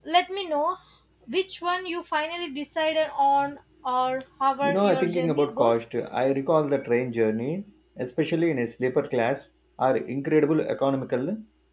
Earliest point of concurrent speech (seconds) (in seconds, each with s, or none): 4.6 s